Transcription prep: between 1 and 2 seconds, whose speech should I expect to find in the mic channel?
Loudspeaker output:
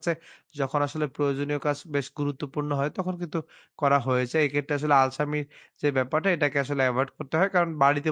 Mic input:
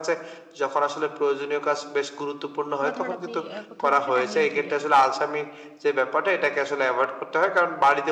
echo only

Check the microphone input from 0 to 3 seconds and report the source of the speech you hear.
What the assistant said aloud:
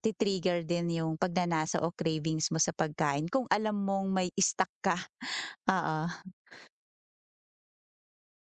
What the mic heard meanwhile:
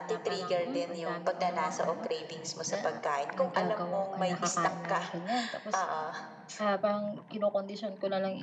both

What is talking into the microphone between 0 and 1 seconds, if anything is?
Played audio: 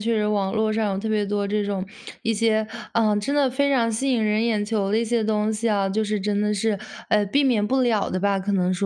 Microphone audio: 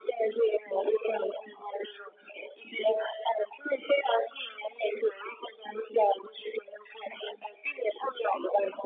echo only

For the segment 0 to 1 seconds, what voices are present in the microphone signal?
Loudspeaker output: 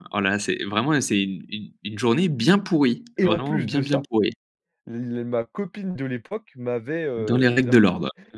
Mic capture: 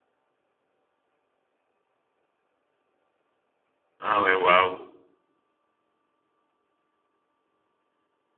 neither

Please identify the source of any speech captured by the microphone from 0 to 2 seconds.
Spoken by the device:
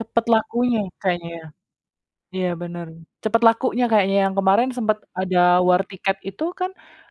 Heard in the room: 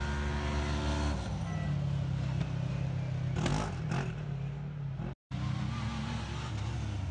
neither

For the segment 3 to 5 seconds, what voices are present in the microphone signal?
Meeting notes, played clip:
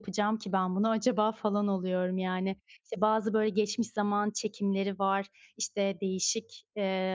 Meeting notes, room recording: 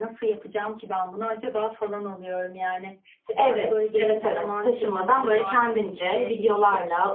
both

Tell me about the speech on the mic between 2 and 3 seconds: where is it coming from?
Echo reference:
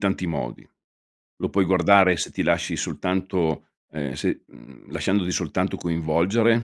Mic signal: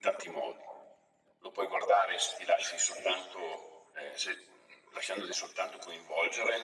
echo only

